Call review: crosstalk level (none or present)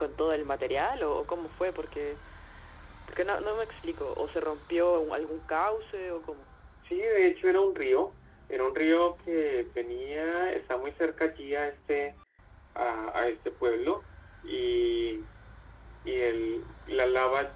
none